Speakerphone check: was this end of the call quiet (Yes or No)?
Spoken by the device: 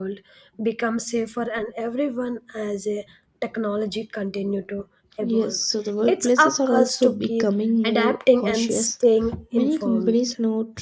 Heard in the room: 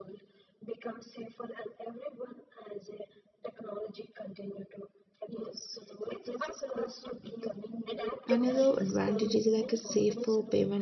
No